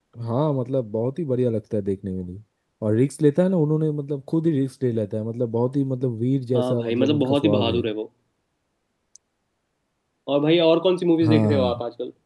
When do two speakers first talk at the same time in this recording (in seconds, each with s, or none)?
6.5 s